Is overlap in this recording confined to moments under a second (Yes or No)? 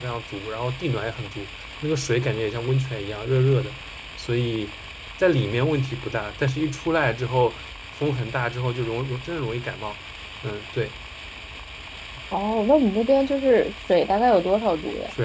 Yes